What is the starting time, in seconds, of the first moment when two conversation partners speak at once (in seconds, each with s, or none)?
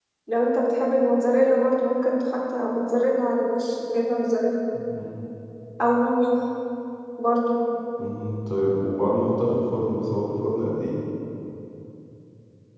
none